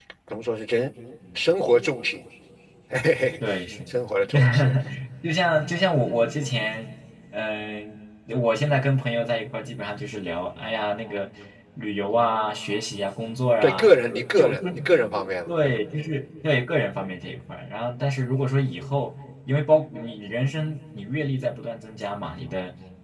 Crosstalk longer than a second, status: none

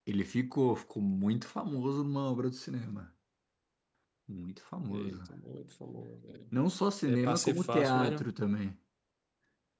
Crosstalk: present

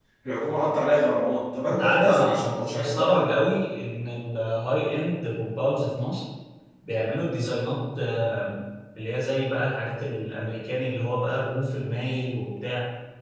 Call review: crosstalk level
present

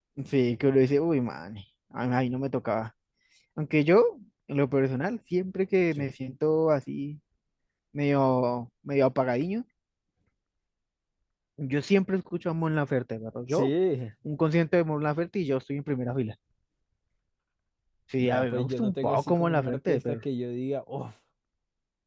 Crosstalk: present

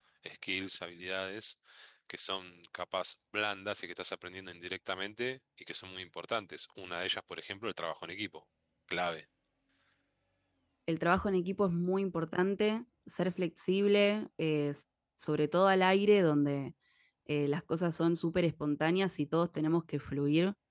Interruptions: none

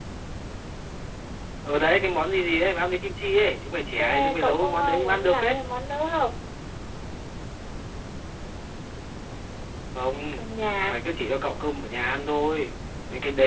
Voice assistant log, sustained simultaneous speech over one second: present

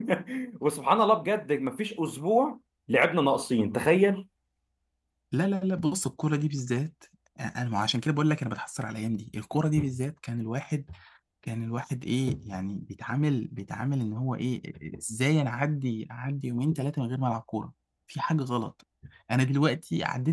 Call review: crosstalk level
none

